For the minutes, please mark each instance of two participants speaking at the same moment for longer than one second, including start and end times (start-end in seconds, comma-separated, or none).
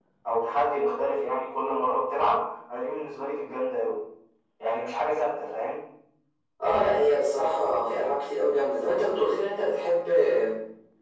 none